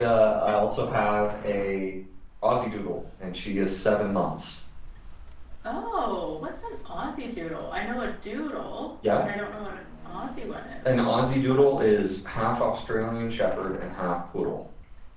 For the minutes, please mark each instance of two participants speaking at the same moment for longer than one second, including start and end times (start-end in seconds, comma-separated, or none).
none